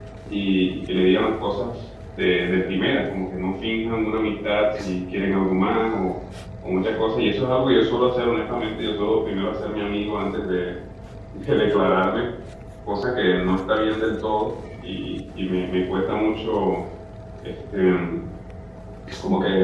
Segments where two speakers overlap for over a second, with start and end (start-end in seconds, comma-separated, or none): none